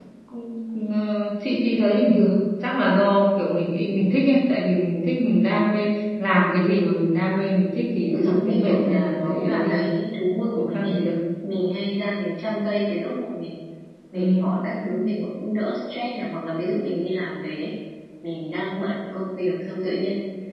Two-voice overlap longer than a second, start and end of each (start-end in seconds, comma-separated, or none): 8.1-9.8